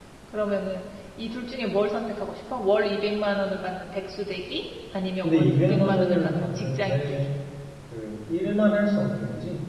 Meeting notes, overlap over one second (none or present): present